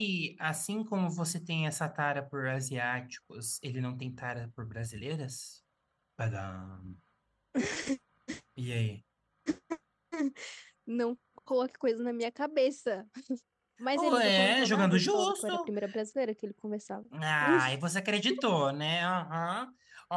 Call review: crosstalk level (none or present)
present